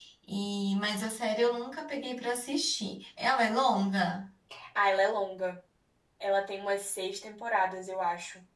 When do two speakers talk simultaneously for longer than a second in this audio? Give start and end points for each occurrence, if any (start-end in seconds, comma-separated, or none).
none